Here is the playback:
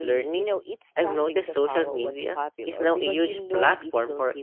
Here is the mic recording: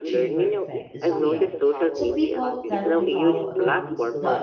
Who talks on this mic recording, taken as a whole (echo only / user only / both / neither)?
both